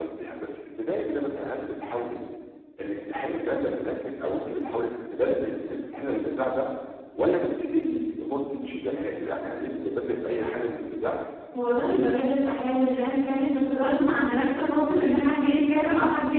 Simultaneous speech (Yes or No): No